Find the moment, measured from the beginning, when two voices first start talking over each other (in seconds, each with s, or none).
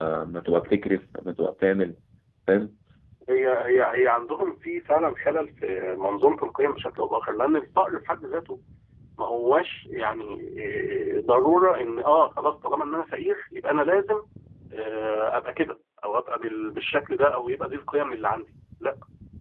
none